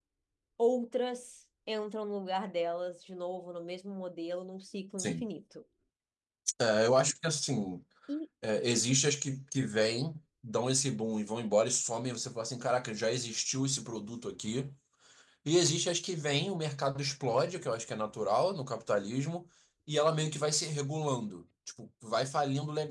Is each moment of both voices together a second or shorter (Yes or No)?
Yes